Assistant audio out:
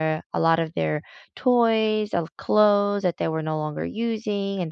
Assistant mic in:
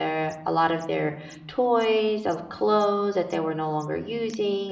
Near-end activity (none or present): none